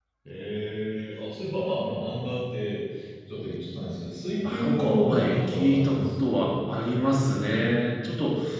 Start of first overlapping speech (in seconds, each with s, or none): 4.4 s